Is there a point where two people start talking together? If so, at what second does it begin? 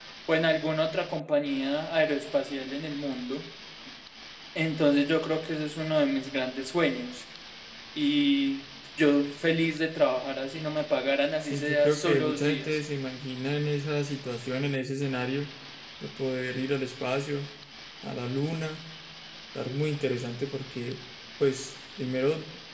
11 s

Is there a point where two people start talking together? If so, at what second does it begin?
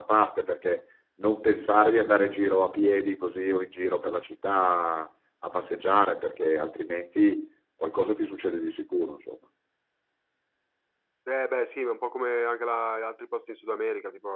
none

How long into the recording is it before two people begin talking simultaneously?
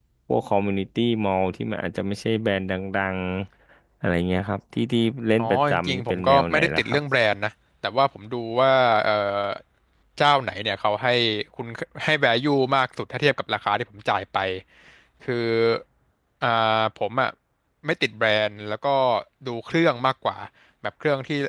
5 s

